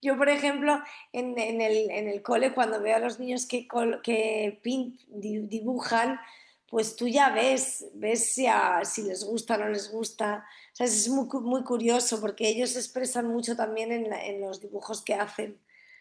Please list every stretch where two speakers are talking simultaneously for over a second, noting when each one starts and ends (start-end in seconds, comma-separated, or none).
none